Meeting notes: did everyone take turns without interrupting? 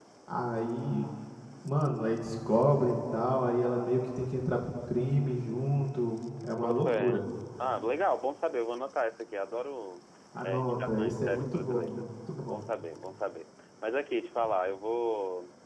No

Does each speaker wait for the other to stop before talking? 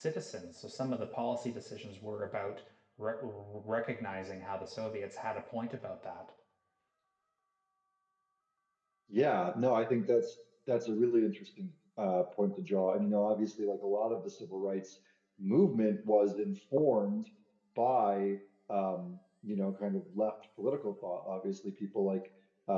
Yes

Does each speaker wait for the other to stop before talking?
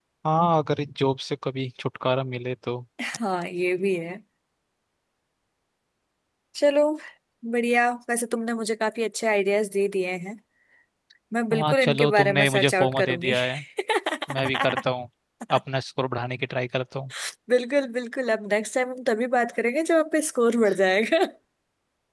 No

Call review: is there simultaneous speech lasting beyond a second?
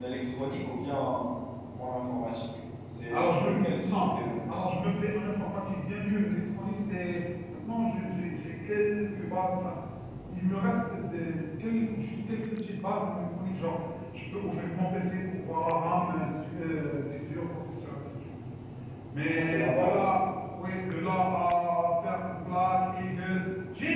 Yes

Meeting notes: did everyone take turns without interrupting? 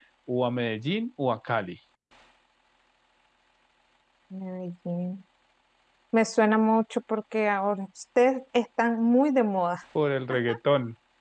Yes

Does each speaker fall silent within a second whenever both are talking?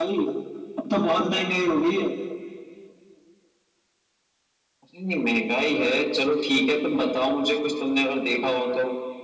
Yes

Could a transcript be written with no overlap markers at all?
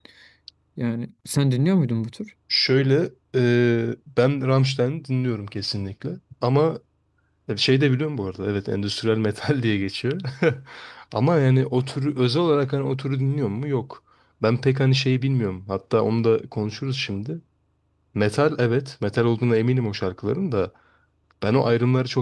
Yes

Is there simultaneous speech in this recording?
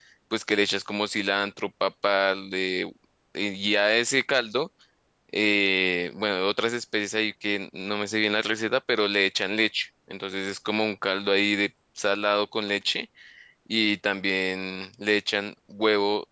No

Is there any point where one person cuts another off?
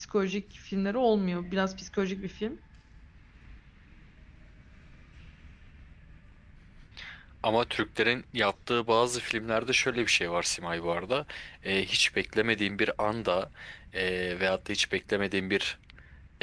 No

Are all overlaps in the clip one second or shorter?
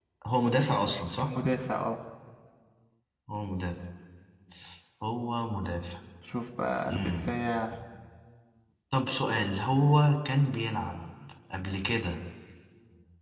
Yes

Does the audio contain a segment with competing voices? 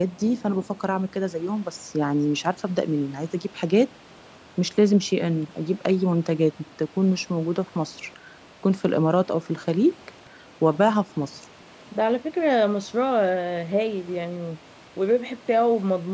No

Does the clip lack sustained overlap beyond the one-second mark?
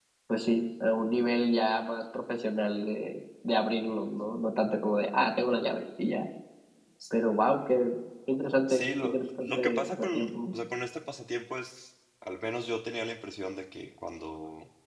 No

